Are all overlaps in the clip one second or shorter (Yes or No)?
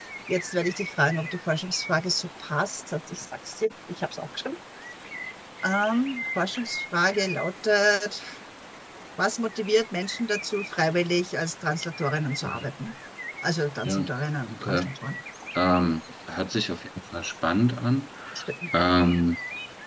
Yes